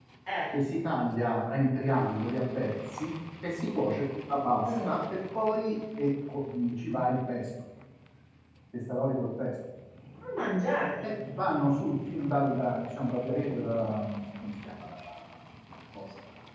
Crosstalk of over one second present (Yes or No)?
No